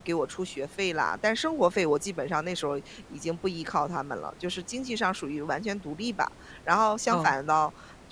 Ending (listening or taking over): listening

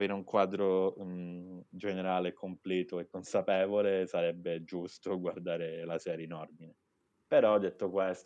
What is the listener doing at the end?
listening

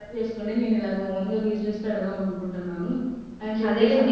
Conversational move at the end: taking over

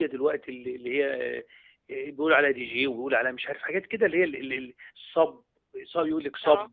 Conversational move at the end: listening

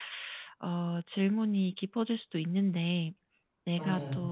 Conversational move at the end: listening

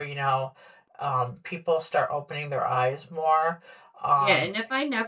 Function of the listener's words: taking over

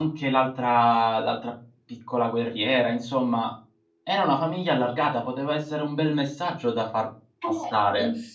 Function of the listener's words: taking over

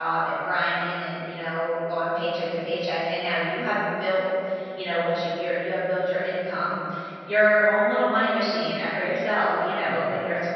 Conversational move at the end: listening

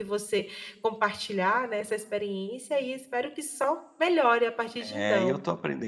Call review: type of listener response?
taking over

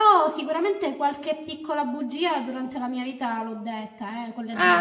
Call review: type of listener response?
taking over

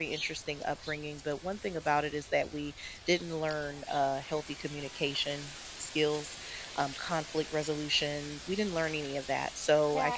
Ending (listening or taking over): taking over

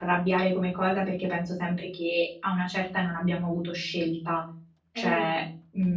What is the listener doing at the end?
listening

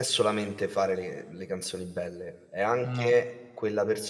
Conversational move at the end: listening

